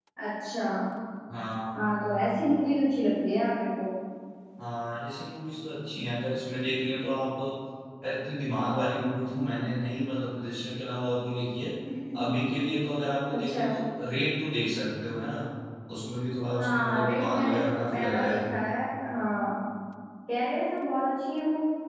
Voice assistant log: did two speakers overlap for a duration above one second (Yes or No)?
Yes